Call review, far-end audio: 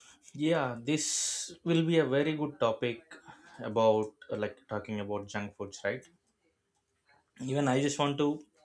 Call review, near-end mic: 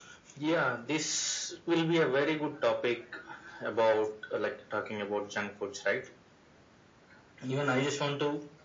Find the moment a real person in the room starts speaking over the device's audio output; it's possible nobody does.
none

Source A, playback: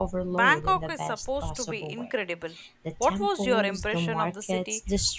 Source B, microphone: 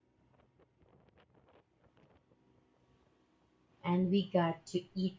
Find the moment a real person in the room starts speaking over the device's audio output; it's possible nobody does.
3.8 s

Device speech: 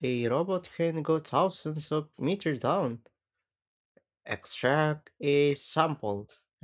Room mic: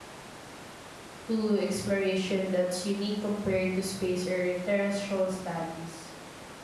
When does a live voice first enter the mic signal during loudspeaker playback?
1.3 s

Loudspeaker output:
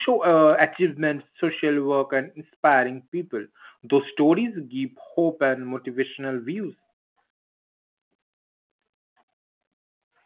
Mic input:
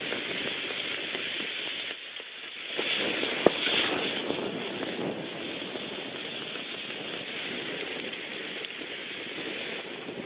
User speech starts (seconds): none

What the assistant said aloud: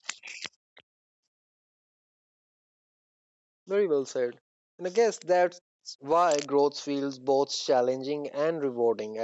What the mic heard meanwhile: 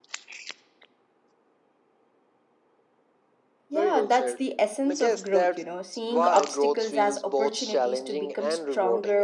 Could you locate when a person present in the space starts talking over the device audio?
3.7 s

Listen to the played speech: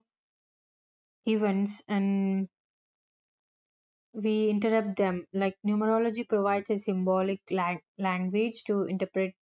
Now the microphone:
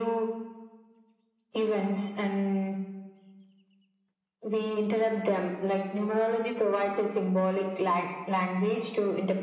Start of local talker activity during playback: none

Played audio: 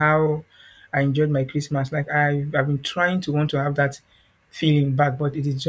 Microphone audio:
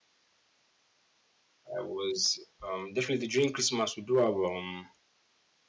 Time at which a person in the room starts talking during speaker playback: 1.8 s

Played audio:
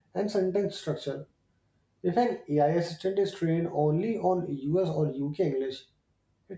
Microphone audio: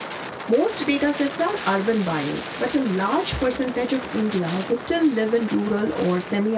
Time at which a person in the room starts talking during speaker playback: 0.5 s

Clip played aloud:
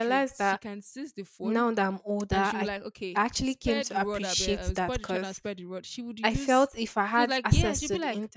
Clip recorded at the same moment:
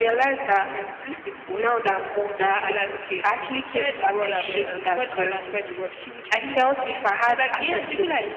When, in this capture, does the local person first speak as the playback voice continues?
none

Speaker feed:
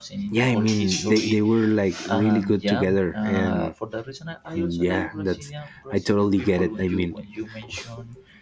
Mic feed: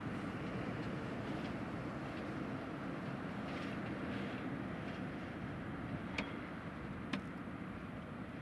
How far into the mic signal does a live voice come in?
none

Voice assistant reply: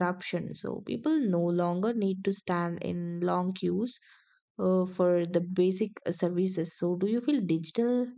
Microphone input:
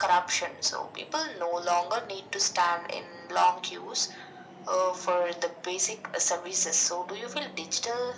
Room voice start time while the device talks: none

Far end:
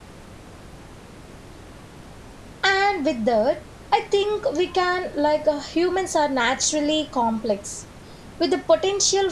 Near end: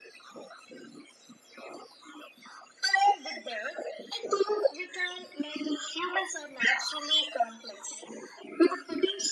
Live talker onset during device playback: none

